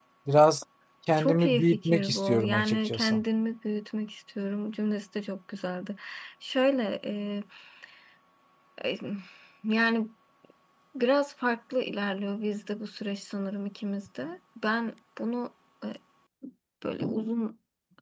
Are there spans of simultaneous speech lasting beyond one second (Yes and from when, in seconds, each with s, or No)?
Yes, from 1.2 s